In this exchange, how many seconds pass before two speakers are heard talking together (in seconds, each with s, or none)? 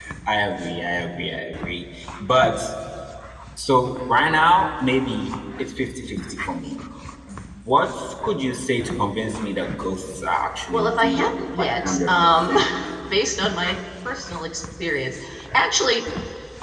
10.7 s